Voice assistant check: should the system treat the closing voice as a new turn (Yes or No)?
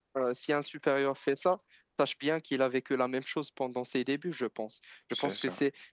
No